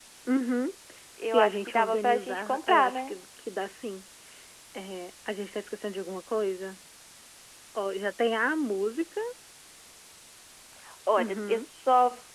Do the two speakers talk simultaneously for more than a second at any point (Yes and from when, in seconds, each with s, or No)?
Yes, from 1.2 s